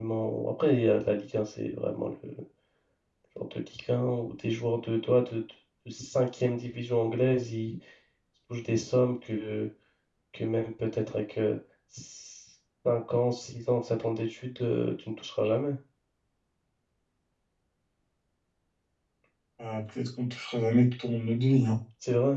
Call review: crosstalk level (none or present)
none